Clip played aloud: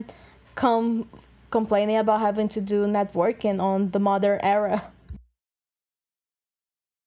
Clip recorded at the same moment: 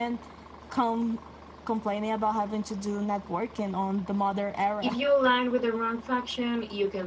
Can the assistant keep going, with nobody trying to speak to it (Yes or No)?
No